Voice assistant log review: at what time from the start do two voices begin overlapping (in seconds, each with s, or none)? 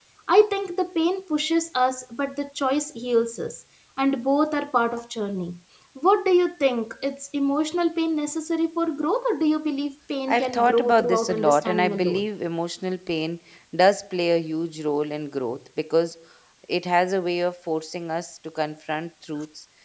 10.3 s